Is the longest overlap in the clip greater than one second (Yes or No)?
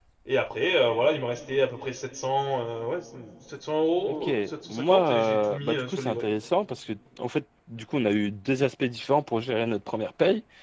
Yes